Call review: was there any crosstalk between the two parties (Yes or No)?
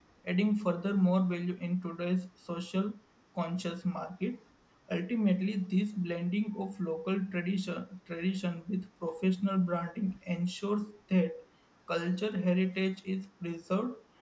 No